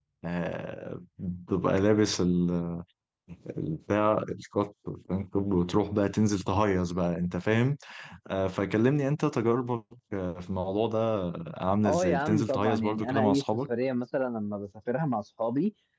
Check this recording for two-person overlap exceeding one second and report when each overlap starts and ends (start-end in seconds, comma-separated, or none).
11.8-13.6